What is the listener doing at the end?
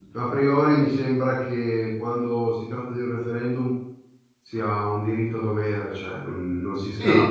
taking over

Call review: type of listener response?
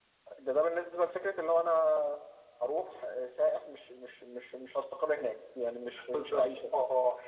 taking over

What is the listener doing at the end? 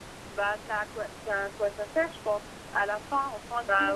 listening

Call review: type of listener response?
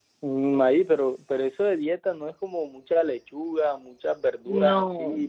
listening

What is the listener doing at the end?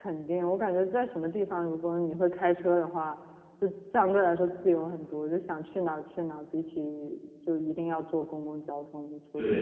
taking over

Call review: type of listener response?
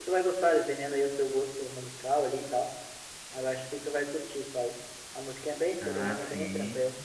taking over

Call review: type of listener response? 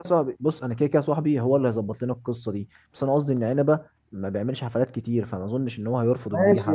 taking over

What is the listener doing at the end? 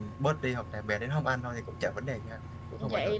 taking over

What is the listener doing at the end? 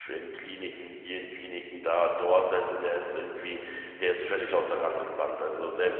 listening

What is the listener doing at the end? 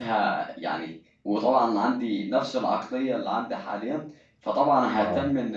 listening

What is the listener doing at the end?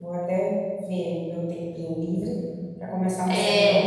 taking over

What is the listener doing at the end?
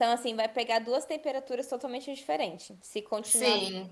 listening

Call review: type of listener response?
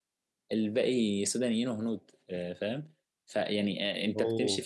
listening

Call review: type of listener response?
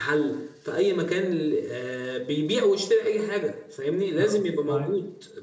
listening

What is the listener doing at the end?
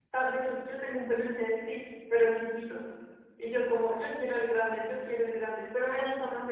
listening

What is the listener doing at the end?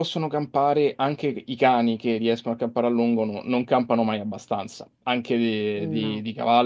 listening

